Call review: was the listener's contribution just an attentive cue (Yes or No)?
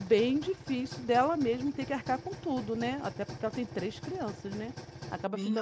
No